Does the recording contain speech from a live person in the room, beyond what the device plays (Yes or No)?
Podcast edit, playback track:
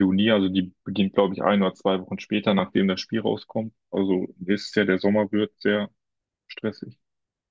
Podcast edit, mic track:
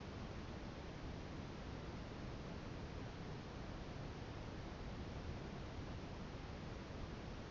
No